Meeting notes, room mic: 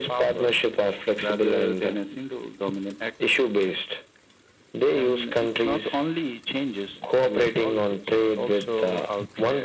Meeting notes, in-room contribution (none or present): none